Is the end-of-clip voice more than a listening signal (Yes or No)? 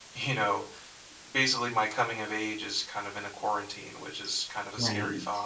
Yes